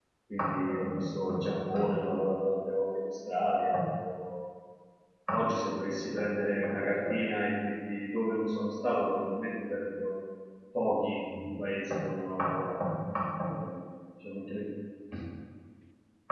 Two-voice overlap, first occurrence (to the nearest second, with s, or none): none